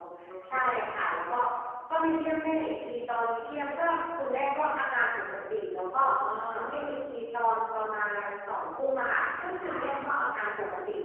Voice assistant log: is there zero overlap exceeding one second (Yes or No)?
Yes